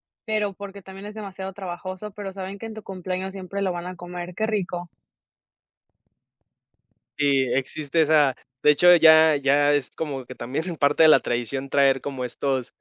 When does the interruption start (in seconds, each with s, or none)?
none